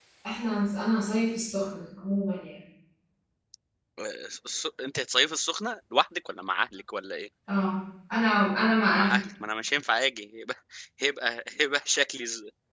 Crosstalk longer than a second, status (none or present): none